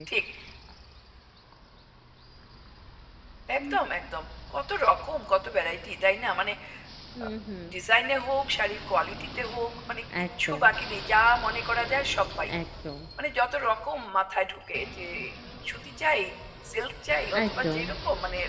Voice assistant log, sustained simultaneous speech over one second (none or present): none